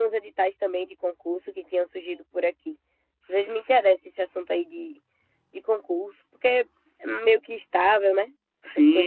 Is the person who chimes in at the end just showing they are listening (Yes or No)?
No